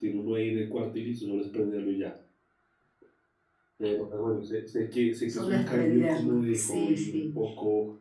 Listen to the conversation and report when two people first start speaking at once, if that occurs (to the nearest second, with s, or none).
5 s